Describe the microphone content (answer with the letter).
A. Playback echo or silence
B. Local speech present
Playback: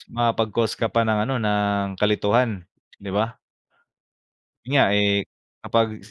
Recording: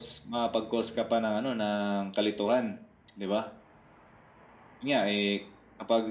A